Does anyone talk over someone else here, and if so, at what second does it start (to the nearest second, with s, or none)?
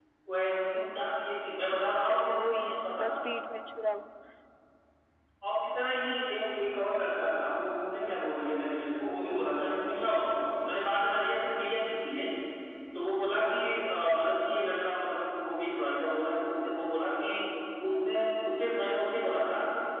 2 s